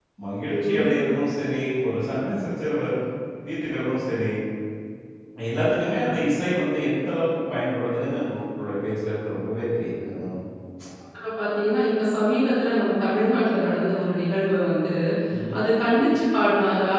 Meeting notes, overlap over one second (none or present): none